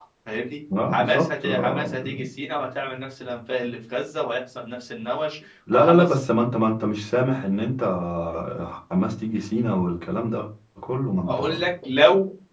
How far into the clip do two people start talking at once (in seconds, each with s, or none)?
0.9 s